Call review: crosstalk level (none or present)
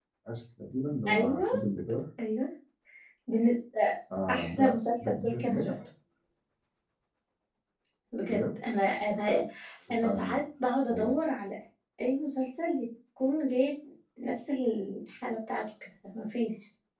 present